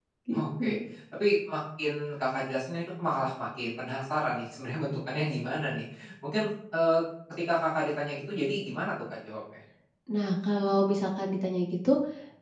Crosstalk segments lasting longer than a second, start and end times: none

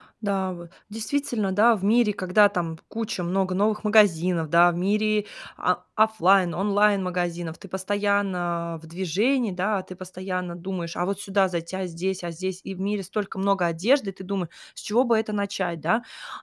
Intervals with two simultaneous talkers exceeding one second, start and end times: none

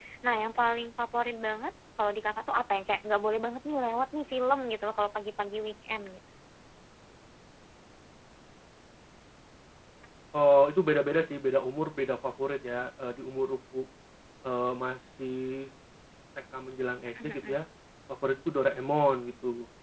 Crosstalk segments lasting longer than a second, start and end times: none

